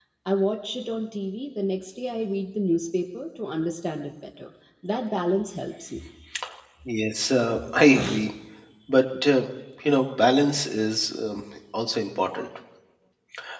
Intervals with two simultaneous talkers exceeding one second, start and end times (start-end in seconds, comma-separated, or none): none